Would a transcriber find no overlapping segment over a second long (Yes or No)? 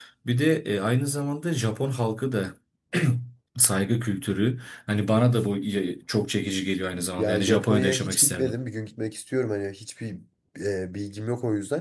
No